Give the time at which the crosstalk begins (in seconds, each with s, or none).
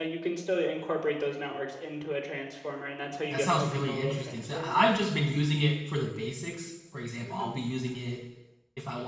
3.3 s